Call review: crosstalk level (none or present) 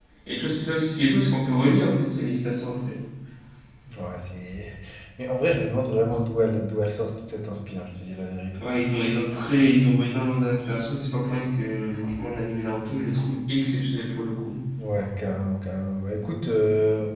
none